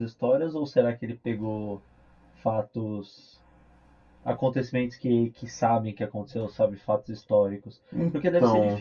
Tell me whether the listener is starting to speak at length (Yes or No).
No